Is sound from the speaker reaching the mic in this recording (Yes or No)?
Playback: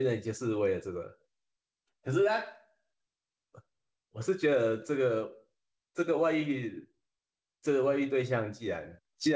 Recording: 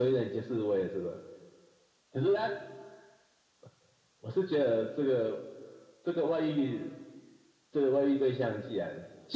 Yes